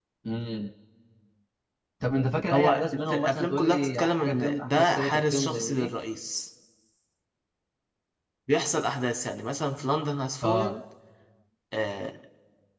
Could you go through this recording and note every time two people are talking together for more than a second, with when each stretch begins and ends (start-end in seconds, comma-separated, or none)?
2.5-5.9